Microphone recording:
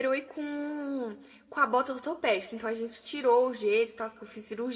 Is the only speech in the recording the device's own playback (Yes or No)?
No